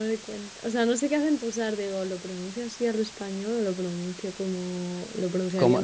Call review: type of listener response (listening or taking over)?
taking over